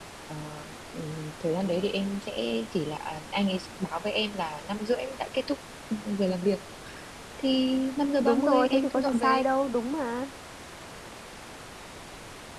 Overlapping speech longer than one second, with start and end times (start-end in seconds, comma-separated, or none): 8.2-9.4